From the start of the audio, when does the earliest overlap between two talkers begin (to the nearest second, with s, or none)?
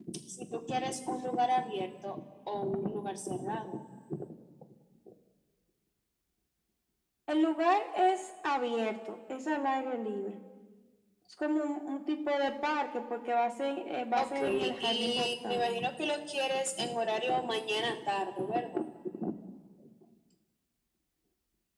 14 s